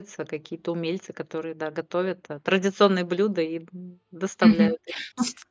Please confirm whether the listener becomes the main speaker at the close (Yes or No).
Yes